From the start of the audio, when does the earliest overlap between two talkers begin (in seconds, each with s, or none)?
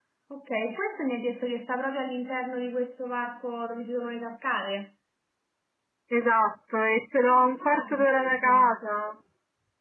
7.2 s